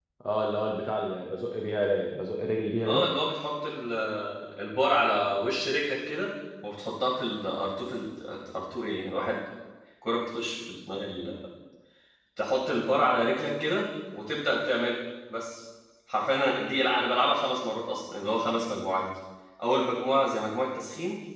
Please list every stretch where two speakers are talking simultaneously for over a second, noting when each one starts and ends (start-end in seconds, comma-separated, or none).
none